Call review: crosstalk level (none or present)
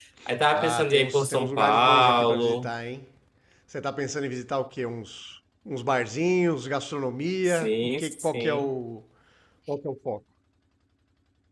present